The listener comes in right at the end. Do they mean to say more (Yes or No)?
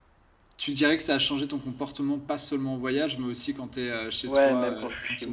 Yes